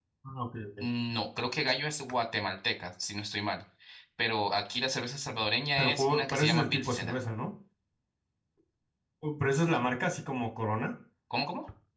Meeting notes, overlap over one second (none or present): present